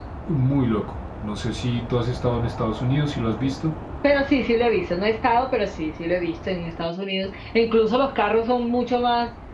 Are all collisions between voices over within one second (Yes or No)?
Yes